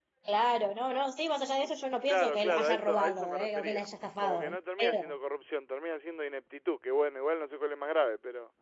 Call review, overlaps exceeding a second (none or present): present